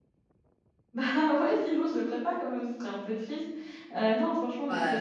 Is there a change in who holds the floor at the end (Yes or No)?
Yes